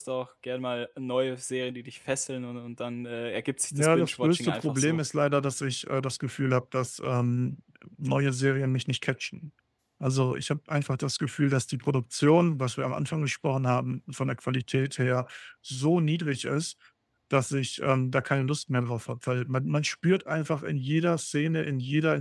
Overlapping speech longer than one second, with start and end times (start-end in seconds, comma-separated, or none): 3.7-5.0